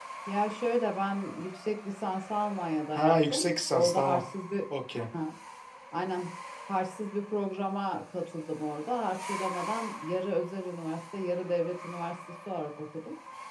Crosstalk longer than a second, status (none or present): present